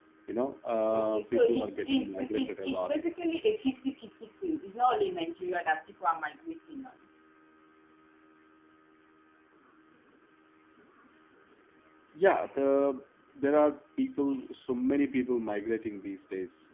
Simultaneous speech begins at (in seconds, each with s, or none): 0.9 s